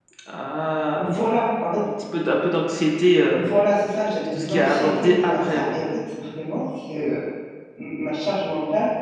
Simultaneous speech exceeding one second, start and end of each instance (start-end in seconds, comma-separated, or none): 4.2-5.8